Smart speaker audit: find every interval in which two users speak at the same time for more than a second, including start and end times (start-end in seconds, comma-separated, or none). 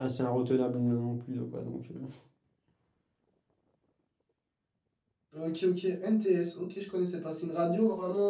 none